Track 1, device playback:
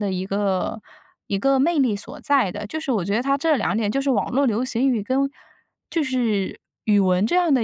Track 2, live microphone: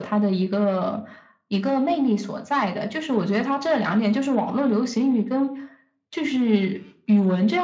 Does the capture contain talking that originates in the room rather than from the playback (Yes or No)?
No